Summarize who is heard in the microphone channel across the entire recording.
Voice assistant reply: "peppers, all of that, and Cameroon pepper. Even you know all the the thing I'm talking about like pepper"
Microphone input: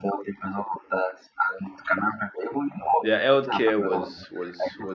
both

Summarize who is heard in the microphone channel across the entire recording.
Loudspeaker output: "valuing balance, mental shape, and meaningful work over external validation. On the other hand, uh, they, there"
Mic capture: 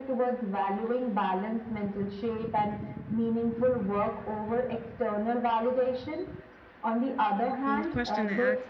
both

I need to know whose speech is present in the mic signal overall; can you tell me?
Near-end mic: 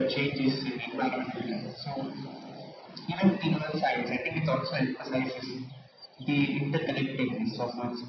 echo only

